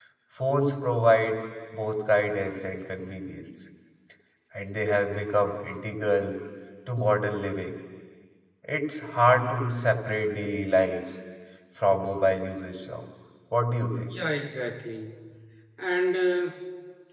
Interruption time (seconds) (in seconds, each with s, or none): none